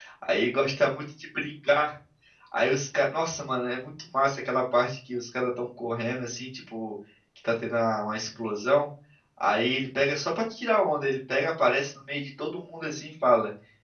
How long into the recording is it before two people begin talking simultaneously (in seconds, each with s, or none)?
none